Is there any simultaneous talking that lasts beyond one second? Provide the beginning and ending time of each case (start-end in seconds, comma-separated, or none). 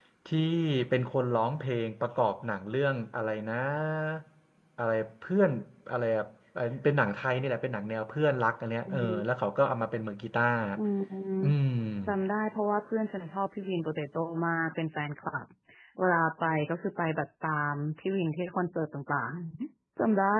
none